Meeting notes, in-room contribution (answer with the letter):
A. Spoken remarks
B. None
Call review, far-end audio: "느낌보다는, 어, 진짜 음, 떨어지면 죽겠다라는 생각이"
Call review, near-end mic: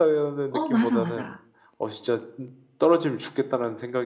A